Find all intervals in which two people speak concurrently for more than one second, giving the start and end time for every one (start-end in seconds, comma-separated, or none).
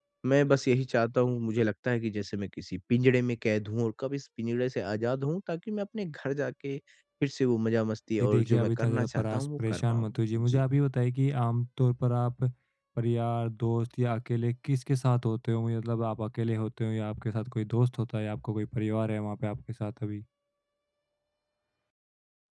8.2-10.6